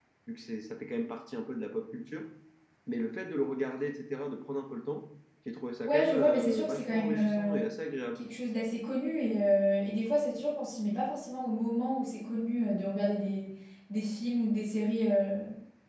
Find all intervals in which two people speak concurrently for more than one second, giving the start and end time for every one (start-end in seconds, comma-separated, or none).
5.8-7.6